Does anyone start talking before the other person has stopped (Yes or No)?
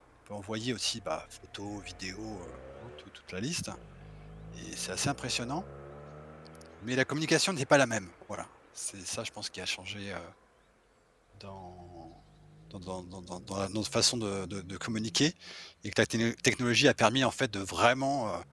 No